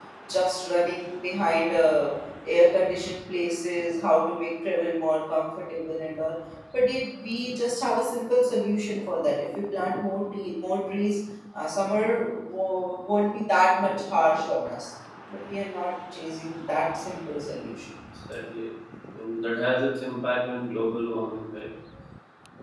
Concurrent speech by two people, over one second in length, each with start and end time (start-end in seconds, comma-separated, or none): none